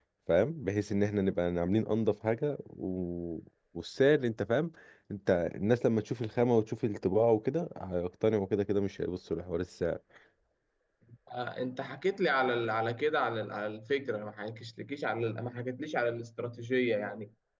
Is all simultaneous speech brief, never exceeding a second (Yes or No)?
Yes